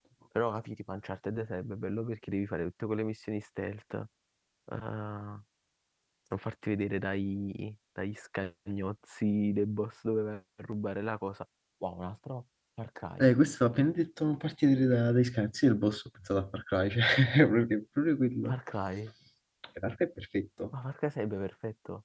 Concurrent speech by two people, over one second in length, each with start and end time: none

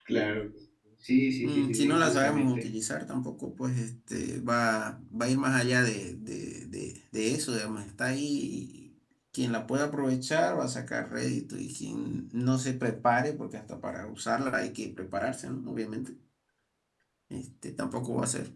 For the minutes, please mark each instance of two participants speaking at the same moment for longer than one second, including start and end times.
1.4-2.7

